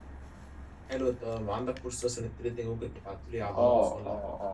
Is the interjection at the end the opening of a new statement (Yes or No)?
Yes